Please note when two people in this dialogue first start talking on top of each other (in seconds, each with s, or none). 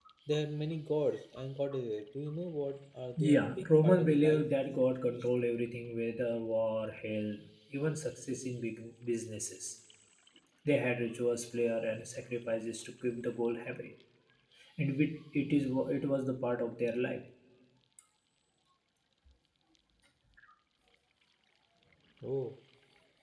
3.2 s